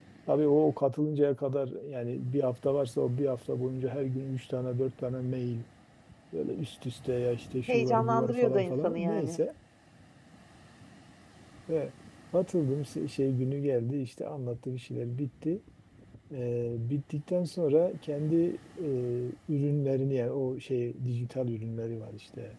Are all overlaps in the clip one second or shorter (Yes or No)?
No